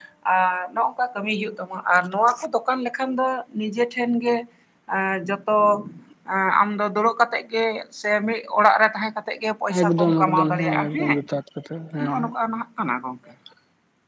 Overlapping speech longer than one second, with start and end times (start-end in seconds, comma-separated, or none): 9.8-11.2